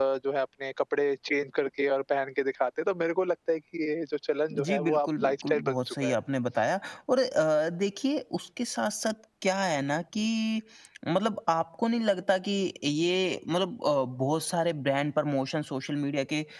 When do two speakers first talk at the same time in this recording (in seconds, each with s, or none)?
4.5 s